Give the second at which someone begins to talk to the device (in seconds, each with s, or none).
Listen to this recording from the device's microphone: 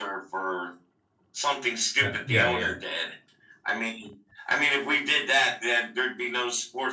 2.0 s